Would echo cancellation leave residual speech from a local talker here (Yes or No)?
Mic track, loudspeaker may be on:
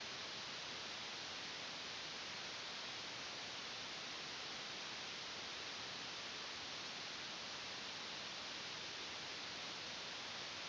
No